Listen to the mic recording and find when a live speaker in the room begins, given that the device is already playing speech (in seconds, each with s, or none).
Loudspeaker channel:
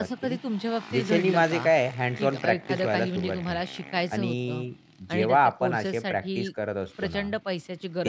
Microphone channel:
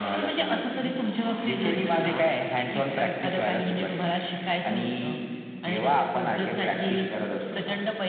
none